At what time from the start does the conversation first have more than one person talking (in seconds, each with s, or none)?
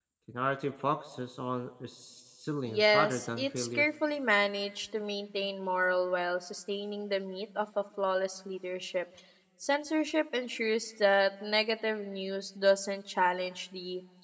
2.6 s